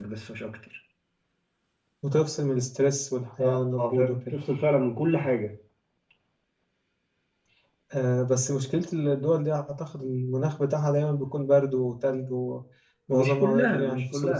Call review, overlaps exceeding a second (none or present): present